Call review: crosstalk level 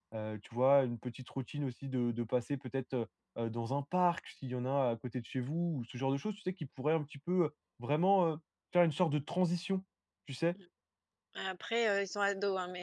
none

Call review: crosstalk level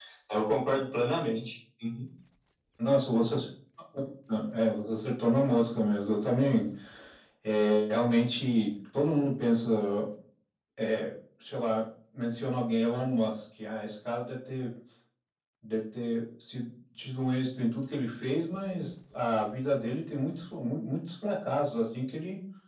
none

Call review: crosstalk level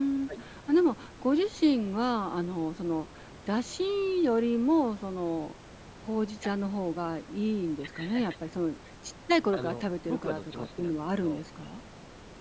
present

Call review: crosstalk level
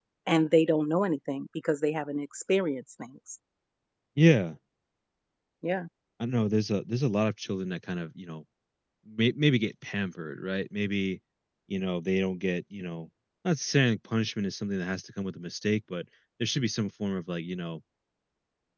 none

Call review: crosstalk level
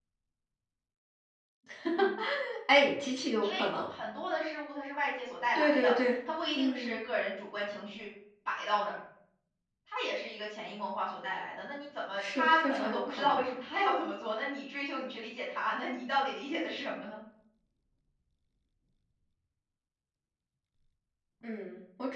present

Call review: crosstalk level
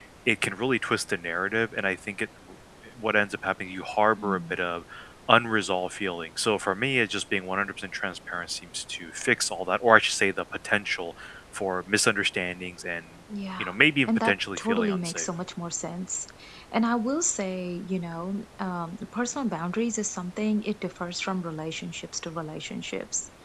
present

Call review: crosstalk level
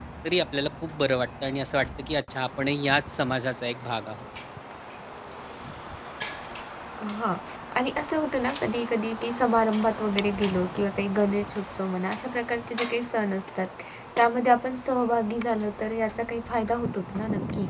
none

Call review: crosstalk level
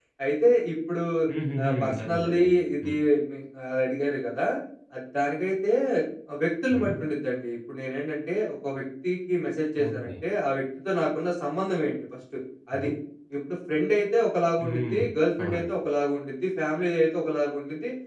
present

